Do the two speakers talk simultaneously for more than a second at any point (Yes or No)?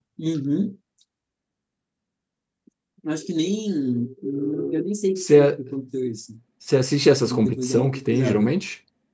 Yes